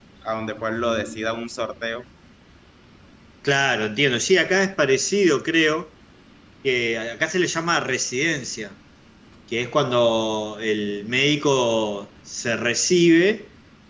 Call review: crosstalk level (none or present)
none